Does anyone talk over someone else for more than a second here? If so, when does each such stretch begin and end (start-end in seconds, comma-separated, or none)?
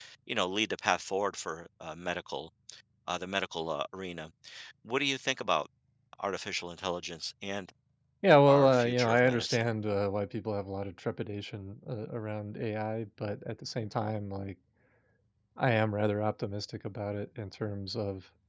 8.5-9.7